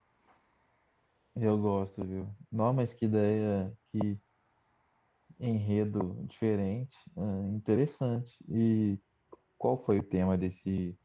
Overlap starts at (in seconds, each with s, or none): none